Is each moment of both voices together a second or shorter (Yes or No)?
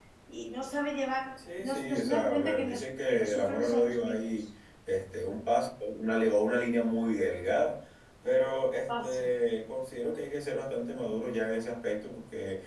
No